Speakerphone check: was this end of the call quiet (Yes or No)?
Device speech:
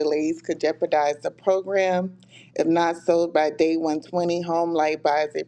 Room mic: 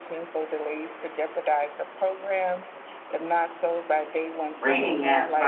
No